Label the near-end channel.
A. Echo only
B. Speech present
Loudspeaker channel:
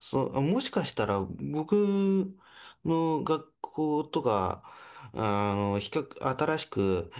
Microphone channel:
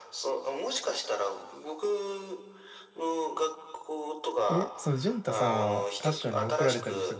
B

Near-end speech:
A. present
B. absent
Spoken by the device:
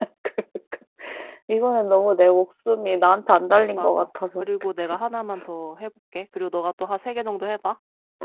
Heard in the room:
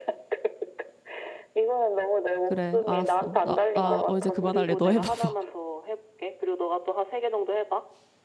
A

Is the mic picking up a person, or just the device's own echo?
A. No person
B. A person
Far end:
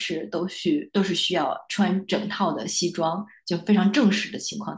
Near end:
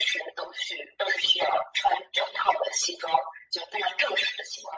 A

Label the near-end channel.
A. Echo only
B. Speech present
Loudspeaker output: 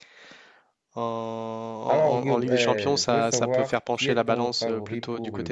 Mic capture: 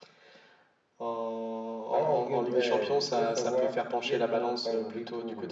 A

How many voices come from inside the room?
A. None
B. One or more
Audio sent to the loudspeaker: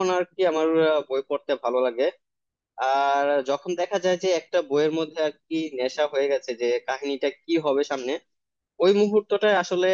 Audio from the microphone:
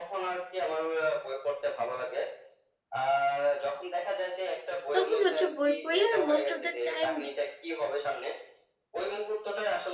B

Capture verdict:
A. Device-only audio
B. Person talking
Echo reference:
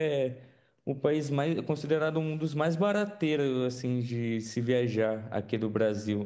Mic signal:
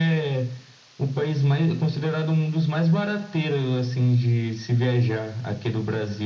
A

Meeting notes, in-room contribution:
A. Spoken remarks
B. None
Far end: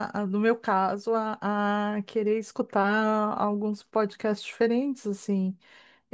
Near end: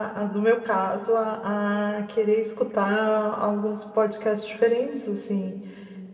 B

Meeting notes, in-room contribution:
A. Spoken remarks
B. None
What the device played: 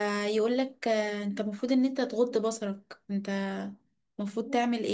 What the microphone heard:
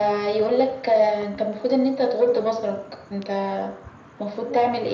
B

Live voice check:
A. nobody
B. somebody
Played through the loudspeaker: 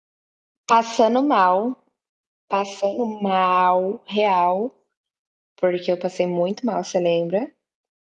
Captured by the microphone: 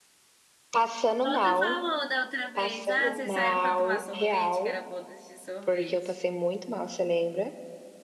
B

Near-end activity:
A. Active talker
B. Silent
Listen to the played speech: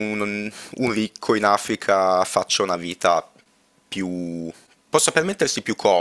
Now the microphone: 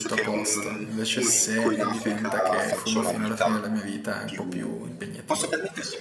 A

